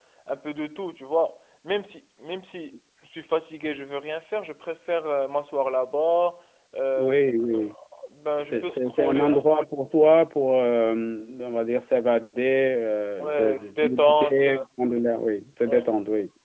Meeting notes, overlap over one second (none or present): present